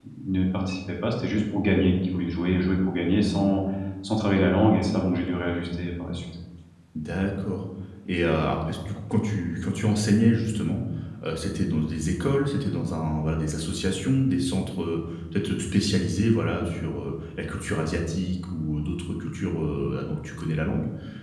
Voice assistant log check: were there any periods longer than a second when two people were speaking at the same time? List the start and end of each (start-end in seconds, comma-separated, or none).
none